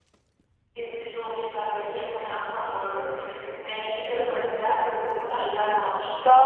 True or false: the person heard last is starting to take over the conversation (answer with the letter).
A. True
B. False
A